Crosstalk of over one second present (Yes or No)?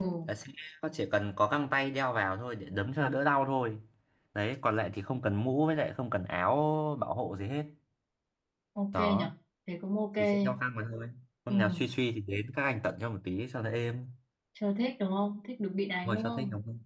No